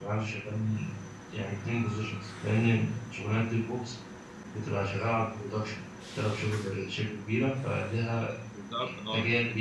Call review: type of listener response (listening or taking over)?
taking over